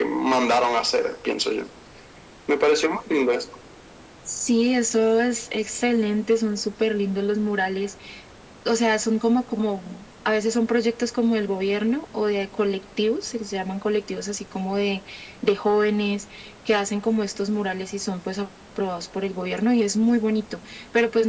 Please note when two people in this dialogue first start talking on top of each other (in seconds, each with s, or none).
none